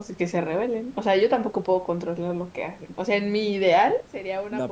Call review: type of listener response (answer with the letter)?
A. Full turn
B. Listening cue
A